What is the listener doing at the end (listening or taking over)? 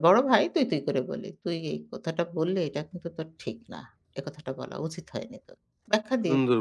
taking over